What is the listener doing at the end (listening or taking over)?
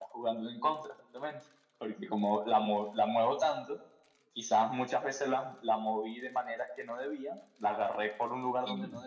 listening